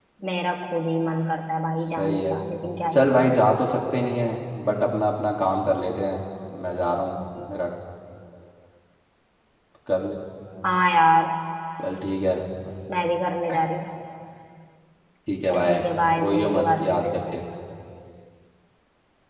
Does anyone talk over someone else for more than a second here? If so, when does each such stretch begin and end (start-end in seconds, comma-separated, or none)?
16.2-17.4